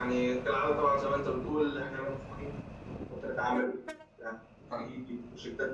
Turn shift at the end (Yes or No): No